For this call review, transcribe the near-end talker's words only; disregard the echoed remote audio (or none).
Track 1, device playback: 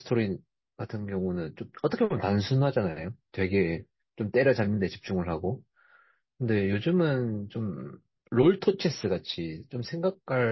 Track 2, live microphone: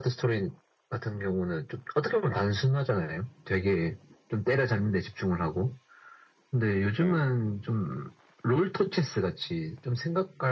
네.